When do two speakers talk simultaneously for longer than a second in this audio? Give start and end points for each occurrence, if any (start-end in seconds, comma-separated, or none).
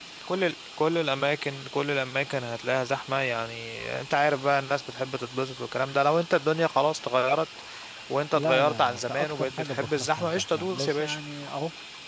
8.3-11.2